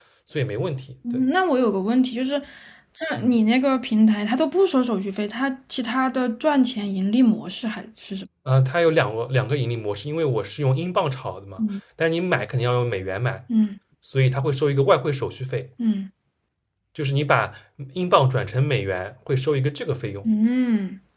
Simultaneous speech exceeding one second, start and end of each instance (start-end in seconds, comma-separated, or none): none